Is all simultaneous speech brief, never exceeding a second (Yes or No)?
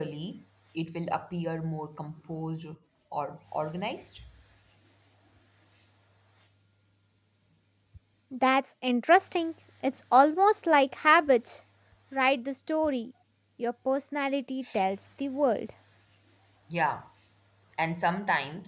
Yes